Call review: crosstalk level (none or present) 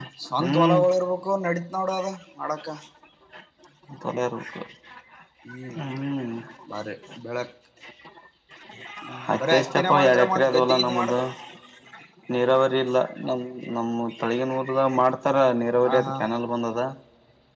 present